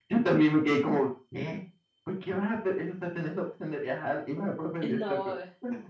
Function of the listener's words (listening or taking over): taking over